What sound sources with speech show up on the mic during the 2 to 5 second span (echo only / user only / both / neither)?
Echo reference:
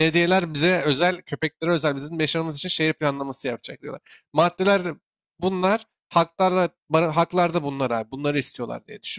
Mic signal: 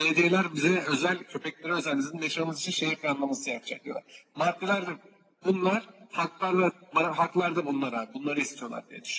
echo only